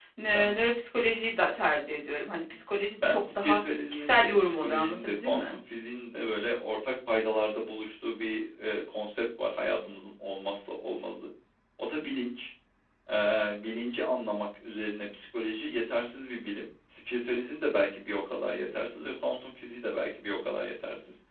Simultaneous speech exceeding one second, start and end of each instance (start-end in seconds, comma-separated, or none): 2.9-5.5